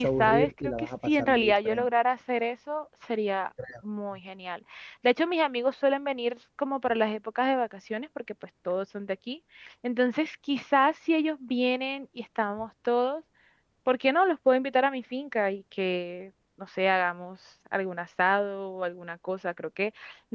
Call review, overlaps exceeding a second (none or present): present